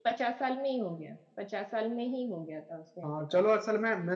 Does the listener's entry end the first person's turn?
Yes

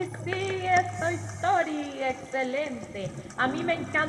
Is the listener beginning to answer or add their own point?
No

